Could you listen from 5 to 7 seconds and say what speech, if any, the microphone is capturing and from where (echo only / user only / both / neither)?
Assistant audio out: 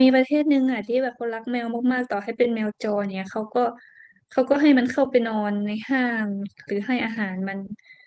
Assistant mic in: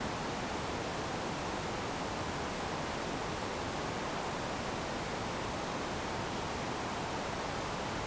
neither